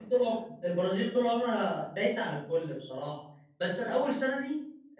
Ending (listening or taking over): listening